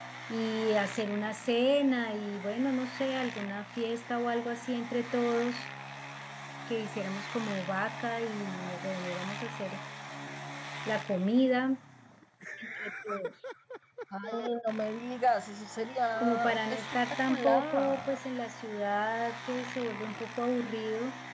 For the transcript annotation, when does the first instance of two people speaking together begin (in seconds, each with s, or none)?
16.2 s